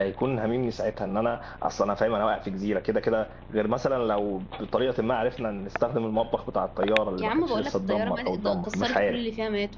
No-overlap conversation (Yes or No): No